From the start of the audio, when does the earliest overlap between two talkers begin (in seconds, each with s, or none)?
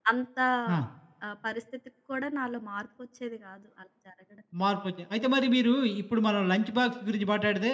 none